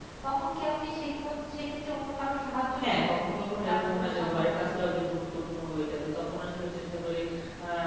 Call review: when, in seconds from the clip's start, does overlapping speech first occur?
2.7 s

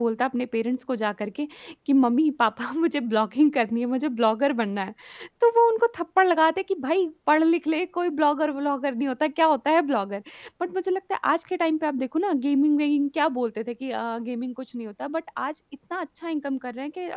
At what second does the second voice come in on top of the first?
none

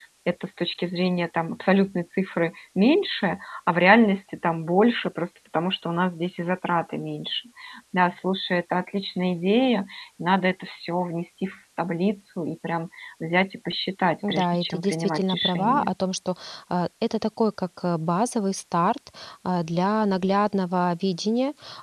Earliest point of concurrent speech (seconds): 14.2 s

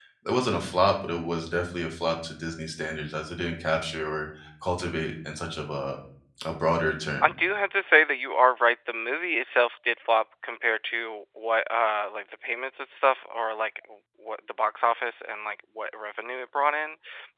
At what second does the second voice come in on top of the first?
none

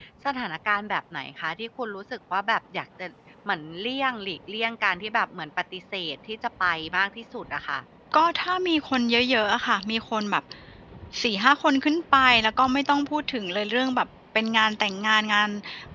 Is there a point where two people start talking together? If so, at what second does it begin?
none

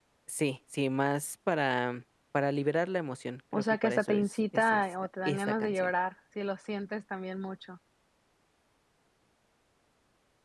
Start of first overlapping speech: 3.5 s

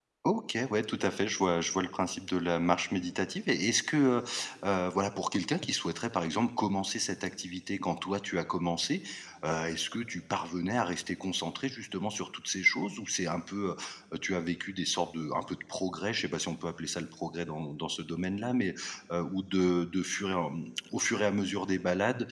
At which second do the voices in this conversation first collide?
none

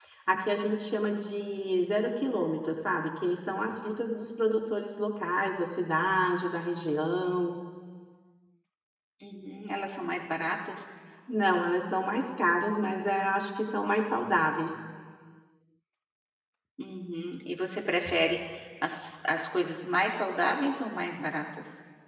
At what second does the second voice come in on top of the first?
none

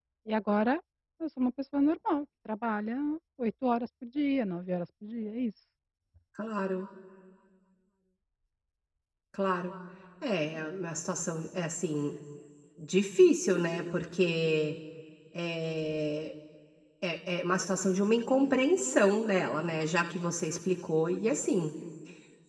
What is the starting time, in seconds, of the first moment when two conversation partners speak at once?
none

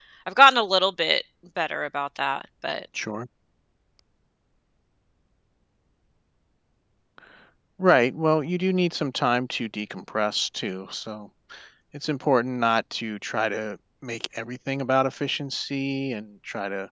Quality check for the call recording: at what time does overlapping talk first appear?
none

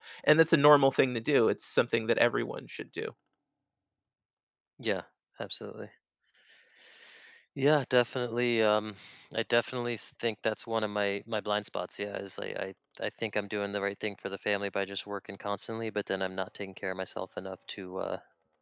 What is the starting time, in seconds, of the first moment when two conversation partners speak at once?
none

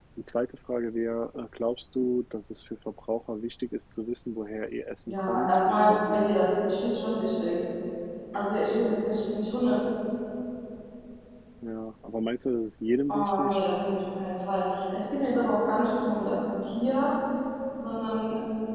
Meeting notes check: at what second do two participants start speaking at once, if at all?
5.1 s

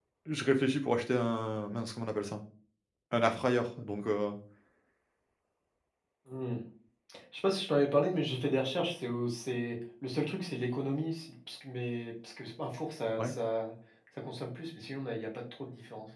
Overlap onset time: none

